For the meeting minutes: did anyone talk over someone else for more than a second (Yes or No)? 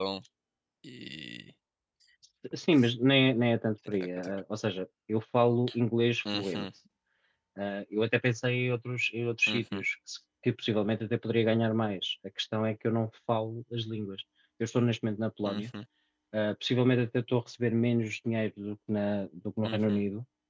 No